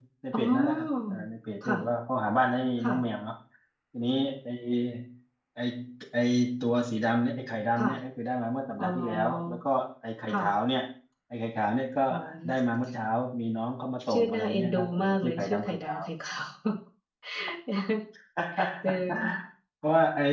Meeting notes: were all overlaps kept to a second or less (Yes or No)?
No